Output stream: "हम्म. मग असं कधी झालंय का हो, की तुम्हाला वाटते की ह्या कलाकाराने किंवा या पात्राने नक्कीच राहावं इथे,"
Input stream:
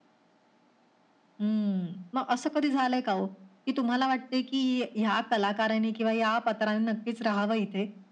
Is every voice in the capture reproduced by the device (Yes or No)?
Yes